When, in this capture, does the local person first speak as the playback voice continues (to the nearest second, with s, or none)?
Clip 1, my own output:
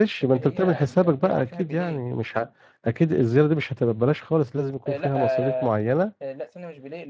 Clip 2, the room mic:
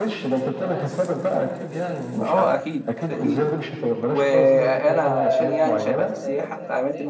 2 s